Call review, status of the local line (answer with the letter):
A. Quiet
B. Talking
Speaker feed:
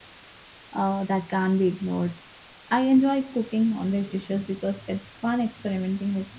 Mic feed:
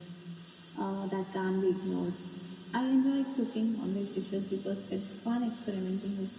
A